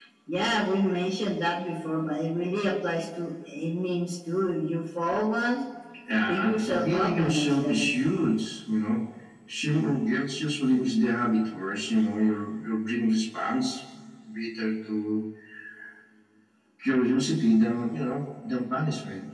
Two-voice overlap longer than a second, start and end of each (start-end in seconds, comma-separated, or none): 6.3-7.9